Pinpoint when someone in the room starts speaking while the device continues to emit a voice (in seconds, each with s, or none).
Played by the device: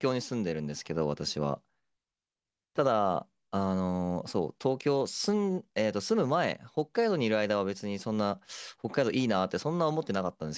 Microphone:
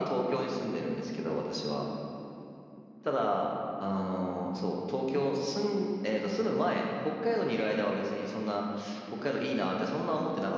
none